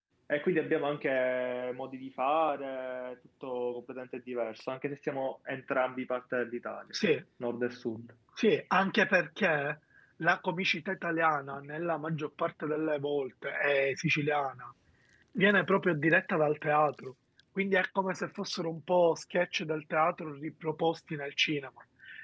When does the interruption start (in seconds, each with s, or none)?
none